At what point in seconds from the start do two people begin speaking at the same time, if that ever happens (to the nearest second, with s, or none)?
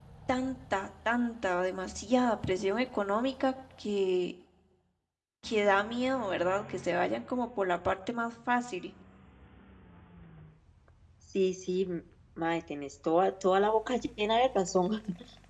none